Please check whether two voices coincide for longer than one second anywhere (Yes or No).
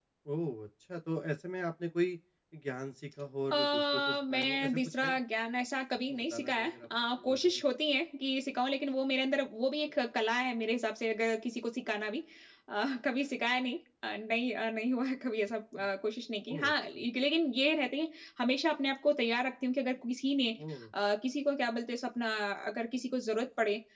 Yes